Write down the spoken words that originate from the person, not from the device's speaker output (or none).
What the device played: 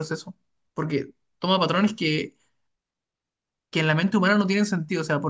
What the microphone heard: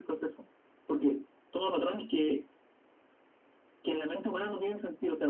none